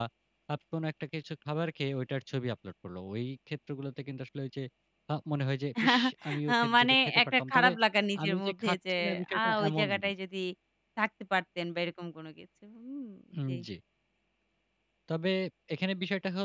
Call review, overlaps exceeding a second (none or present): present